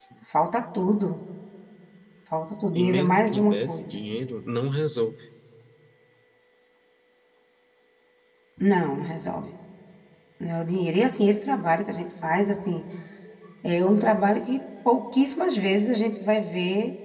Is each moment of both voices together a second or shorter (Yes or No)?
No